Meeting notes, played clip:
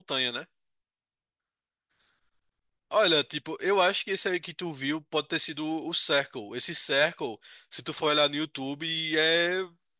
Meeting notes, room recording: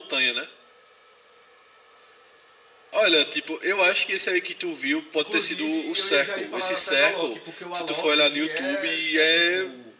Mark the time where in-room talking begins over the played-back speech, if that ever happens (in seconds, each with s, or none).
5.1 s